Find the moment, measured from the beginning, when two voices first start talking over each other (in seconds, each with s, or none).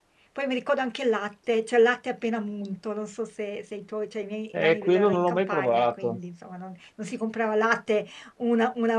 4.5 s